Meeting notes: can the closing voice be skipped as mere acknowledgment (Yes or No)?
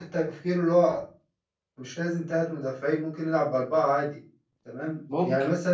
Yes